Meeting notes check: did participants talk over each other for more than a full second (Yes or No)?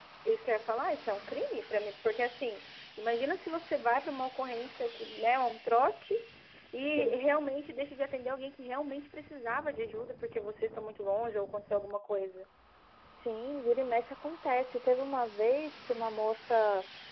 No